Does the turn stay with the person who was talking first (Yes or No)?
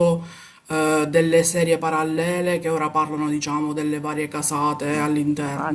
No